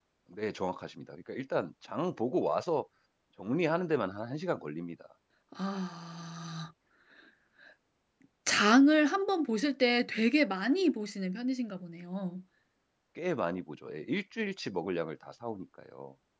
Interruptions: none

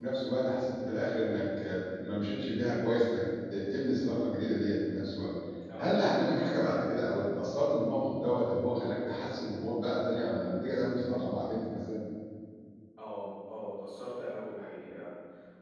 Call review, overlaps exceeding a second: none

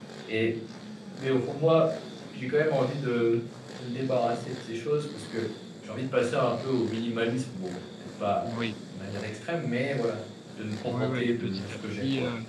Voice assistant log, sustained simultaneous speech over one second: present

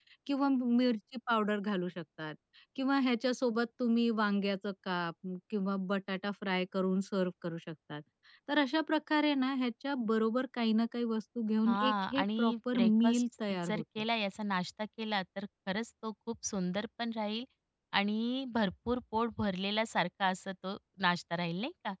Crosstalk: present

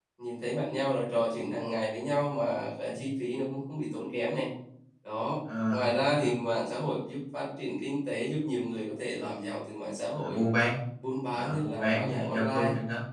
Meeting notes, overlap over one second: present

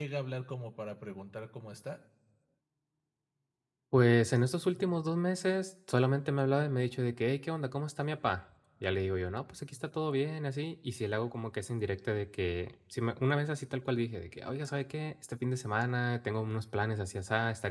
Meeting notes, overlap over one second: none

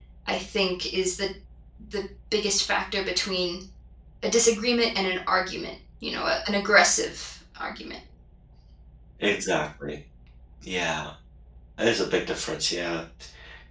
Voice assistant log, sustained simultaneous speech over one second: none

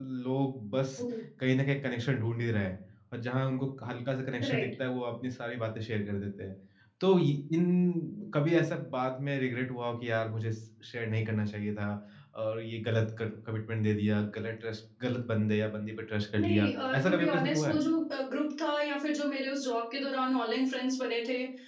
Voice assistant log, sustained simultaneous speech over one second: present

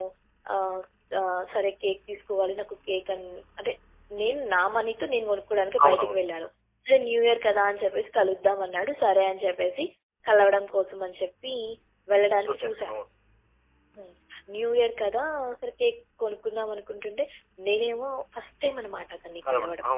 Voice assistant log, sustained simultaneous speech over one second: none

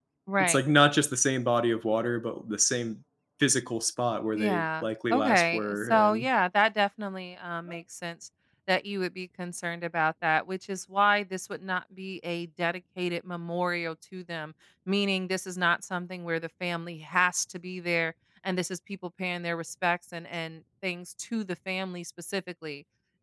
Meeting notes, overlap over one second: present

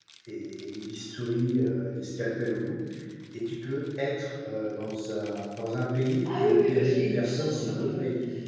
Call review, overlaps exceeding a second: present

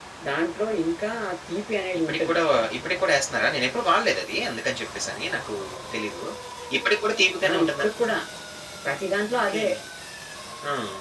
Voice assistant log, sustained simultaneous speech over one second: none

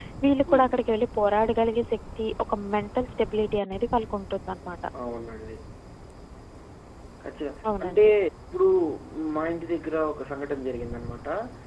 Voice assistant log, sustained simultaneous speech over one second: none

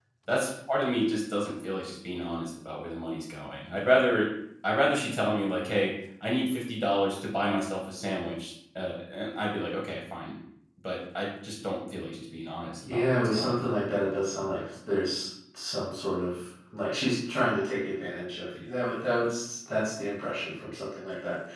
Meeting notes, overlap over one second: present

